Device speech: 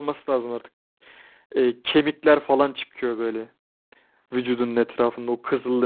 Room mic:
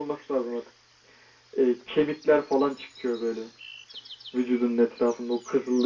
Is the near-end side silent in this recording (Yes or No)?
Yes